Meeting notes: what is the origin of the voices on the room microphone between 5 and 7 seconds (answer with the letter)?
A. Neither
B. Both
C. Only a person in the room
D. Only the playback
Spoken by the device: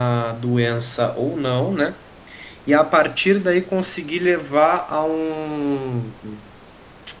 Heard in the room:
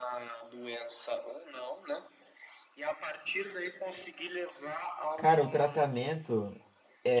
B